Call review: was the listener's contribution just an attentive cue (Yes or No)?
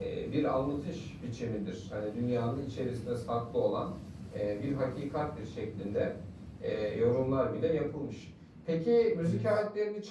Yes